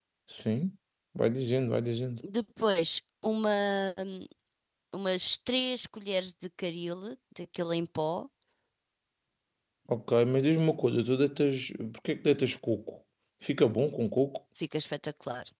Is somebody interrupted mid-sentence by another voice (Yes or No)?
No